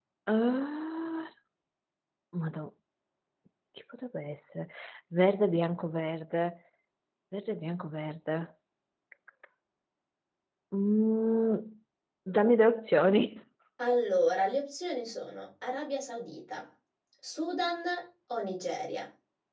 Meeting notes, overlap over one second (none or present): none